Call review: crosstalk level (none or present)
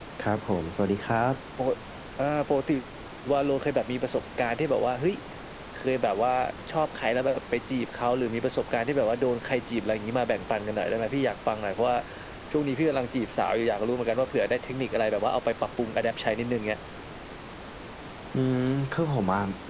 none